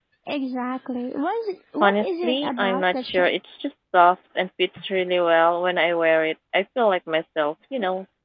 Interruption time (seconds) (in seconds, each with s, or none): 1.8 s